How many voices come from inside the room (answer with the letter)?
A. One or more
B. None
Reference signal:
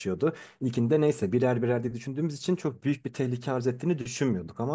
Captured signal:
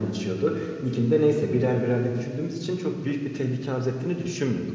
B